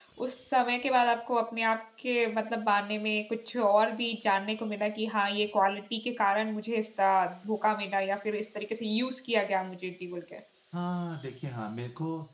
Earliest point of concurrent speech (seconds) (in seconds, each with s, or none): none